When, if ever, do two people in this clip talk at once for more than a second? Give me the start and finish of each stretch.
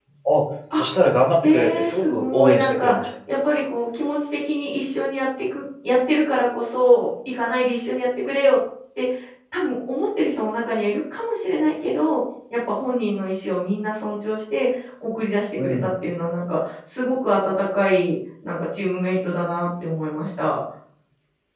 1.4-3.1

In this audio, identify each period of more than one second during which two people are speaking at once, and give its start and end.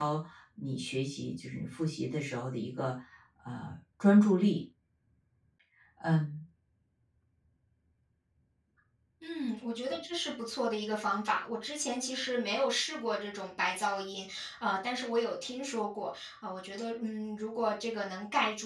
none

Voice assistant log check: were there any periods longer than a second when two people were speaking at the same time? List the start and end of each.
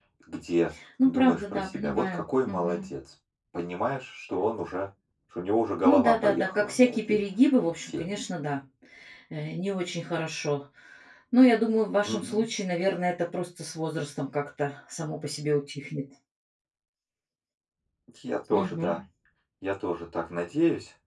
1.0-2.9, 5.8-7.2

